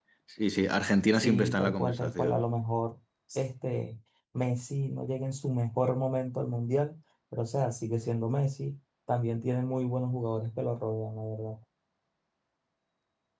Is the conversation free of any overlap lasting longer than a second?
No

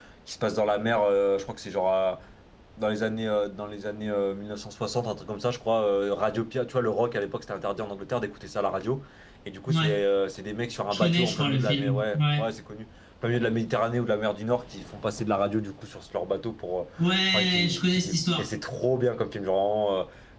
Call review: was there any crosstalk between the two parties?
Yes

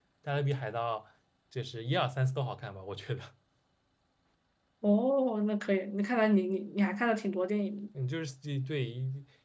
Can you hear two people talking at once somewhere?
No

